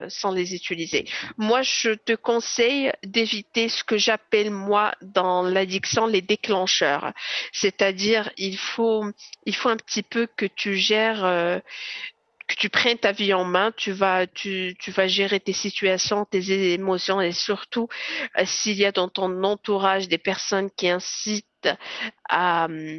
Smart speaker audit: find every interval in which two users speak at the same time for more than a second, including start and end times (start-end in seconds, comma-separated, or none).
none